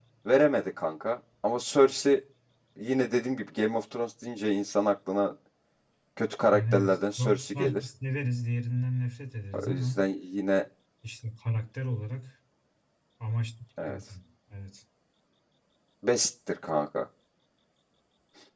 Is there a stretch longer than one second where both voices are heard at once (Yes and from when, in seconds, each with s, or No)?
Yes, from 6.5 s